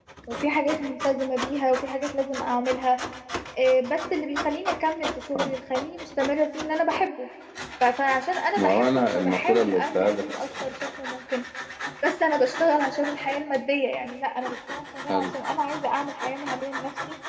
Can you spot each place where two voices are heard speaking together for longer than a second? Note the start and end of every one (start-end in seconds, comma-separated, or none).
8.6-10.2